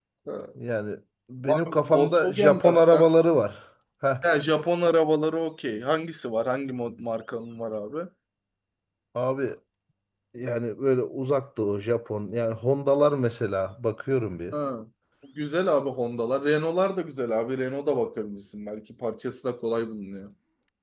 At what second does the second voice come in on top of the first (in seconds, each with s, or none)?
1.4 s